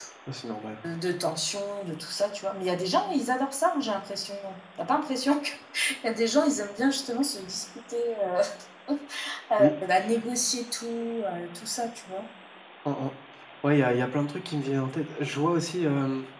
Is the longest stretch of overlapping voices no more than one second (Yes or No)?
Yes